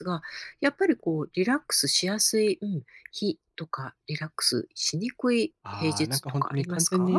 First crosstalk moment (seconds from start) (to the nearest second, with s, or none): 6 s